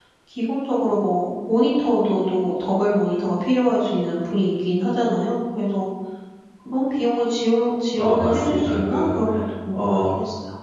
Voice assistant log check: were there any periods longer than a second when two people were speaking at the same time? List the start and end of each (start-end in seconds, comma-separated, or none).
8.0-9.2